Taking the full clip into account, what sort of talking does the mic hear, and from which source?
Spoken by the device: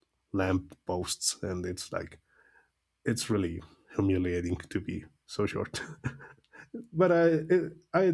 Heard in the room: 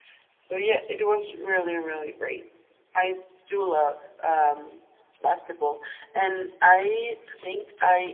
user only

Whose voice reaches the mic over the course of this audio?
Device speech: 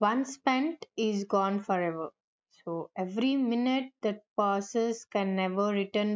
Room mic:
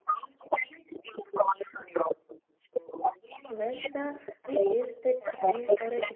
both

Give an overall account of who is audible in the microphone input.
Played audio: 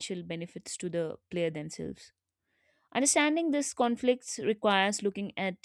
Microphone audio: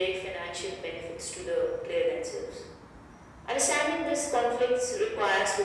echo only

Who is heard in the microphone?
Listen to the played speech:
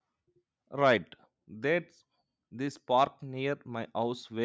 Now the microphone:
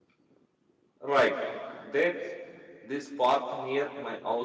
echo only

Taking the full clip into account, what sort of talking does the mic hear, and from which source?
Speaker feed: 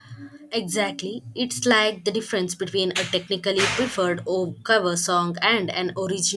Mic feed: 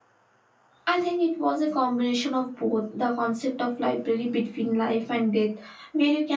user only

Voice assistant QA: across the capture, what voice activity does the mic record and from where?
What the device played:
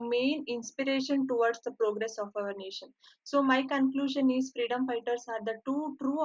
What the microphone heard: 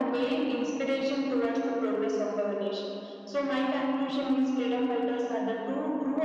echo only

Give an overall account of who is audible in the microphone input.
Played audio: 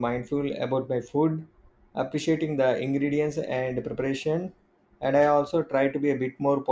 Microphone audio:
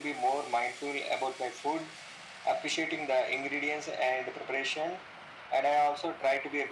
echo only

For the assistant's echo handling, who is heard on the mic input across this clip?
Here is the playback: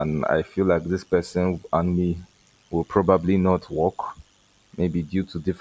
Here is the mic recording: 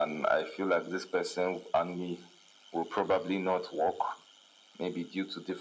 echo only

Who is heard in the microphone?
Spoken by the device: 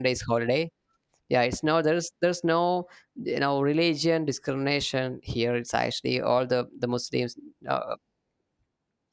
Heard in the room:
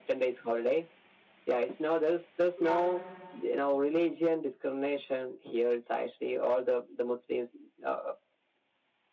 both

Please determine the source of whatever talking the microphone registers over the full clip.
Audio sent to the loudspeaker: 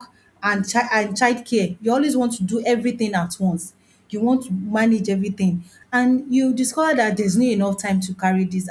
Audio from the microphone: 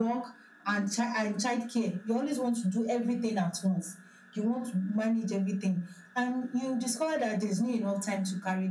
echo only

